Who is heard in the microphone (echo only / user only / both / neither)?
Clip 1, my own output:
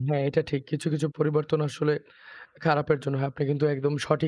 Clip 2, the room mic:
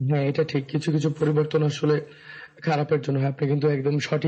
echo only